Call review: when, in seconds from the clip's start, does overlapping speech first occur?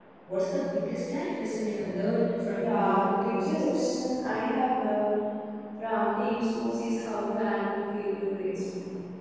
2.5 s

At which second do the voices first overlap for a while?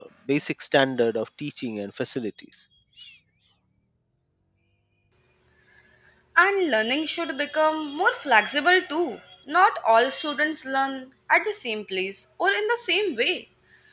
none

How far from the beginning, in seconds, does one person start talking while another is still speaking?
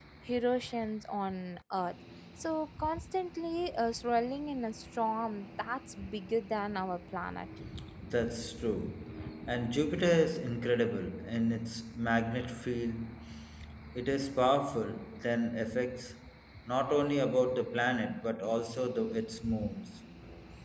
none

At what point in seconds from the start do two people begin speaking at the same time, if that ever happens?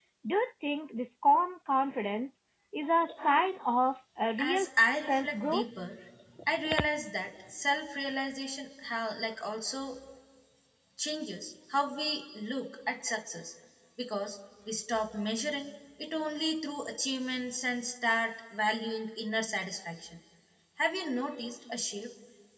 4.4 s

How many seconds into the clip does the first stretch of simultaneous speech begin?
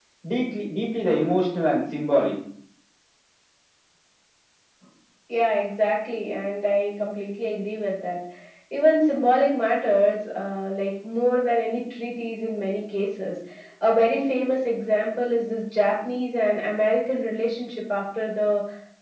none

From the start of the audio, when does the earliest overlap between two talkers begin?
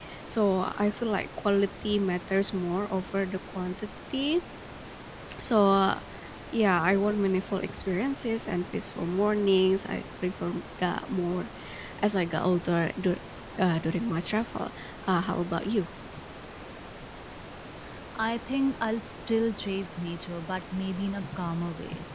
none

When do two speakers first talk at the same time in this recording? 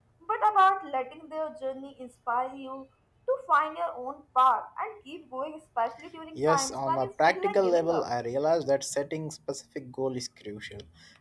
6.4 s

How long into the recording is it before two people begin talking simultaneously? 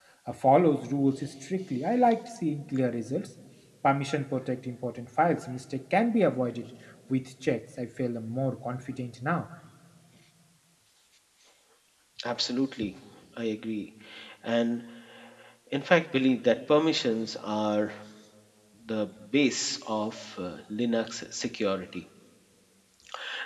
none

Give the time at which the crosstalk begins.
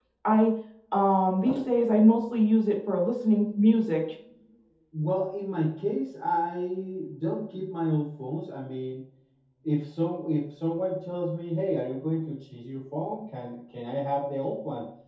none

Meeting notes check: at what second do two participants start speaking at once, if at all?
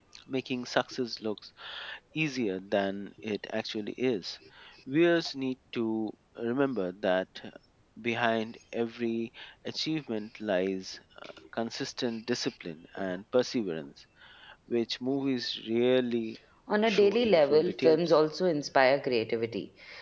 16.9 s

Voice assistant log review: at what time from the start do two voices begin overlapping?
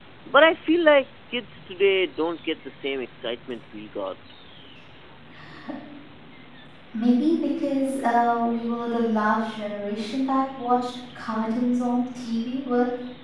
none

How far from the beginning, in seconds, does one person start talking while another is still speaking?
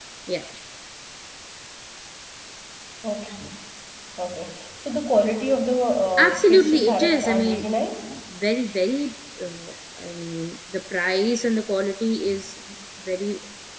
6.2 s

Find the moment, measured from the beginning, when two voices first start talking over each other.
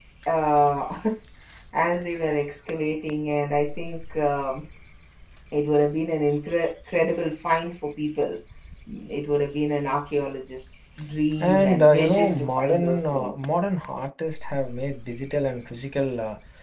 11.4 s

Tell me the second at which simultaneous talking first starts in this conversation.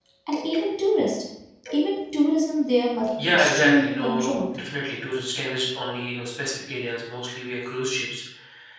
3.2 s

